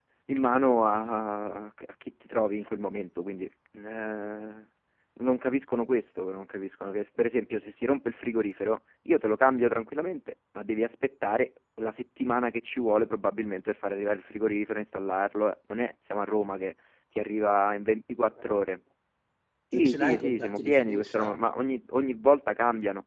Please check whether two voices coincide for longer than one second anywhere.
Yes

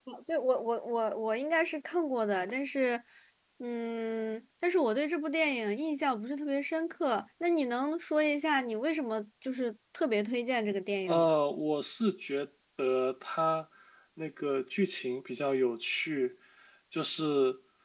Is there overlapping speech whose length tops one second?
No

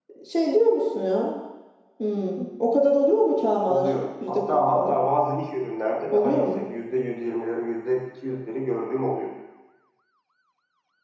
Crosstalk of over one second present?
Yes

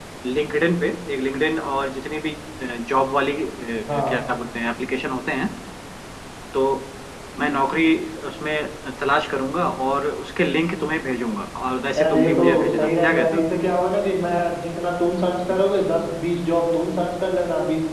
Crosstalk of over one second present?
Yes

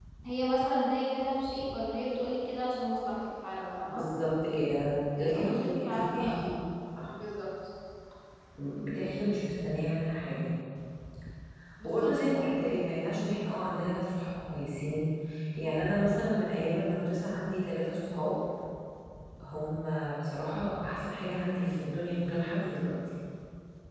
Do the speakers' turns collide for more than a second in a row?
Yes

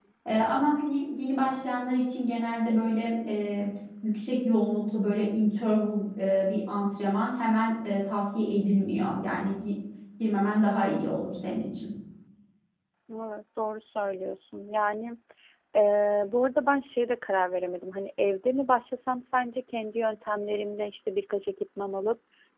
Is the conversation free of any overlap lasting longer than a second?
Yes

